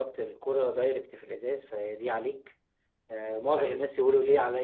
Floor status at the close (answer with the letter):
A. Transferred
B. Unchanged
B